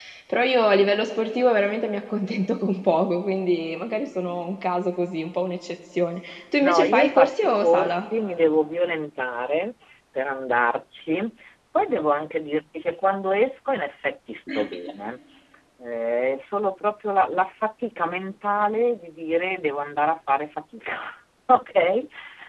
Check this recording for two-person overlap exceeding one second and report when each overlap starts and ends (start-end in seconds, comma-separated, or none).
6.6-8.1